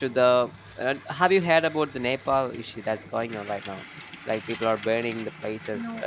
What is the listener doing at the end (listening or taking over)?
listening